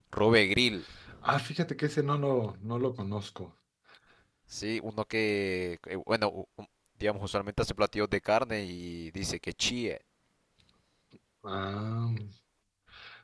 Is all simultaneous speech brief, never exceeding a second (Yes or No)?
Yes